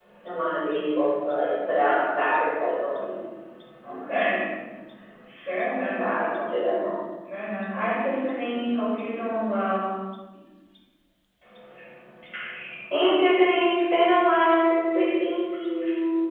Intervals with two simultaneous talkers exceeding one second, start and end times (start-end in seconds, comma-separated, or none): none